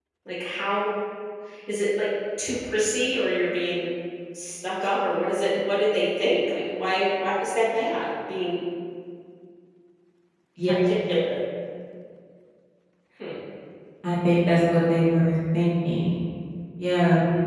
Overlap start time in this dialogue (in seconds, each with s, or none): none